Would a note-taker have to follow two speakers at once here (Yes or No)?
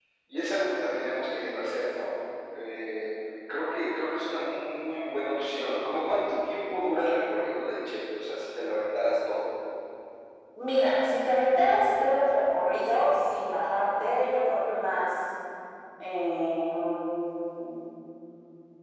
No